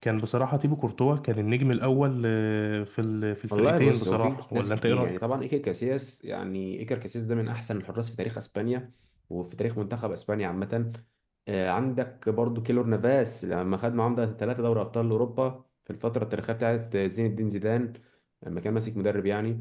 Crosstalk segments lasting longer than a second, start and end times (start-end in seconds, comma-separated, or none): 3.6-5.2